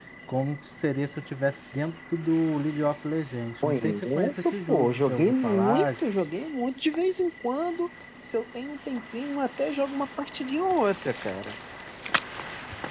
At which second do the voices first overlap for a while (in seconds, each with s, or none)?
3.6 s